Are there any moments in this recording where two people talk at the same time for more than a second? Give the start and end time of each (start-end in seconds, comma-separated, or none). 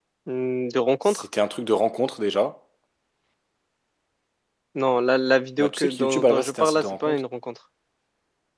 5.6-7.2